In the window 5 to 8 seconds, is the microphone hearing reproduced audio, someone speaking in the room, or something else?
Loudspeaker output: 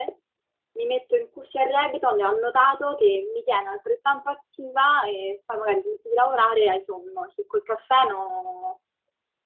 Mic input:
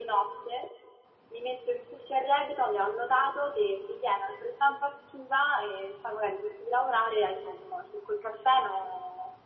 echo only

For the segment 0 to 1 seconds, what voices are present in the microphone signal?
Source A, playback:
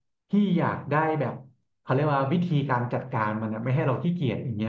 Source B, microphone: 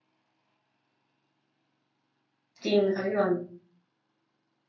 neither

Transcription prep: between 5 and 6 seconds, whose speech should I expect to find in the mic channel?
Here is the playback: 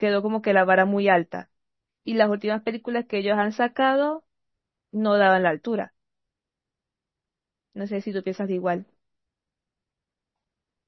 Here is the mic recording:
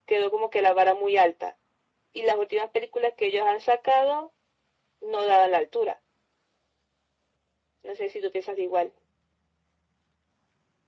echo only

